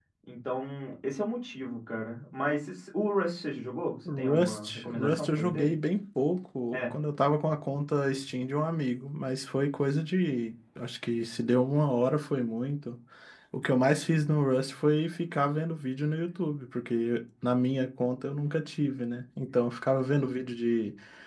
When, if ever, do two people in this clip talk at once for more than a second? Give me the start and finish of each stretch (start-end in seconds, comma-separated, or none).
4.1-5.7